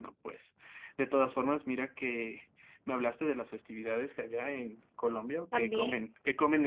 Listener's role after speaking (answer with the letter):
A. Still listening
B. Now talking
A